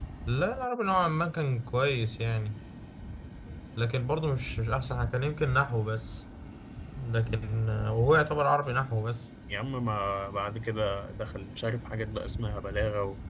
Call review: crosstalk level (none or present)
none